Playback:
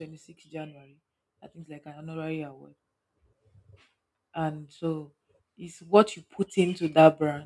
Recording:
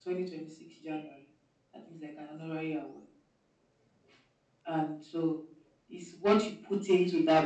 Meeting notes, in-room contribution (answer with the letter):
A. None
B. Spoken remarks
A